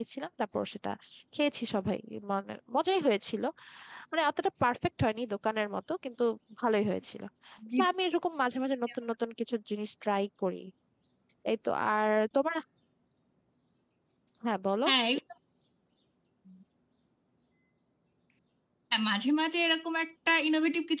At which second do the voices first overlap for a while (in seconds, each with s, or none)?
none